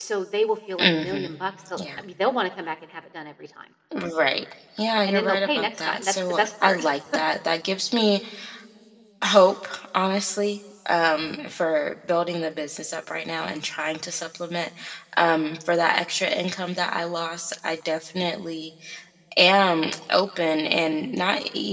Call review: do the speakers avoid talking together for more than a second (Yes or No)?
No